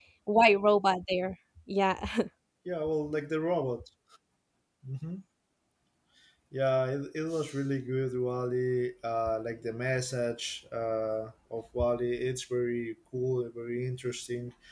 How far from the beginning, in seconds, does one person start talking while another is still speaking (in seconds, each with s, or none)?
none